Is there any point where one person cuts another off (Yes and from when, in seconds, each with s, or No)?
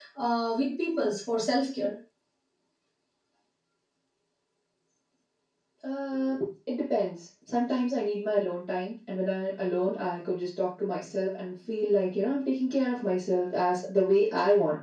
No